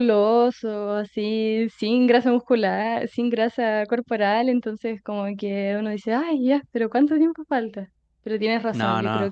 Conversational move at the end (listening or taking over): listening